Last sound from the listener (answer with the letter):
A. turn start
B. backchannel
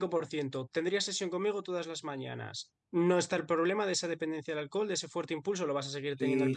A